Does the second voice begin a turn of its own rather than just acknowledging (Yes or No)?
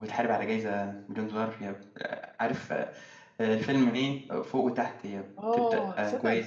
Yes